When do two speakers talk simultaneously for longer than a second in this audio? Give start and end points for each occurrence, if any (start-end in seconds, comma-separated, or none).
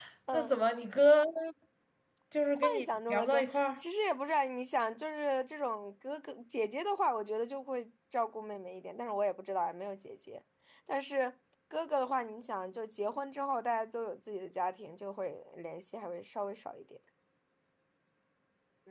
2.6-3.8